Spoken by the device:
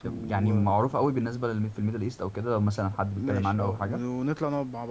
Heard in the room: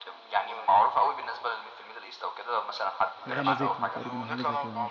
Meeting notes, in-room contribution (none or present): present